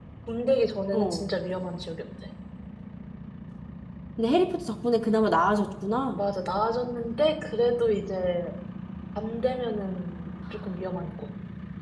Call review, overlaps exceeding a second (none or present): none